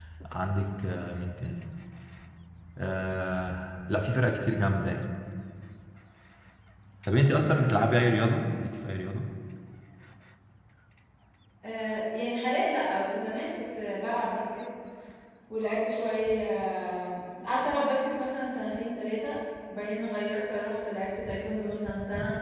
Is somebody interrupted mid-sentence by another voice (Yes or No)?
Yes